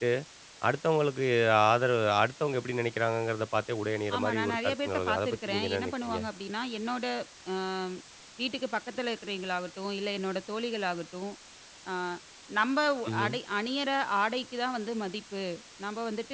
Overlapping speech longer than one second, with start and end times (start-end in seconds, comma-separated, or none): 4.2-6.2